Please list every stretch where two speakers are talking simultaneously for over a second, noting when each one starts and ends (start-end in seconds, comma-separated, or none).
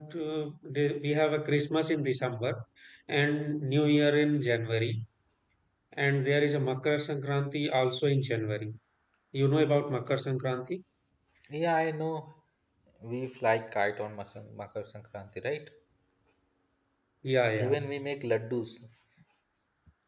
none